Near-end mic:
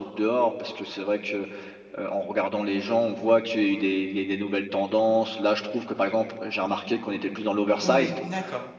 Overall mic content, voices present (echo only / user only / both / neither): both